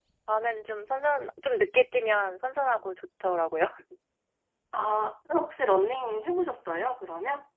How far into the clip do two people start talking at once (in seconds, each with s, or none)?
none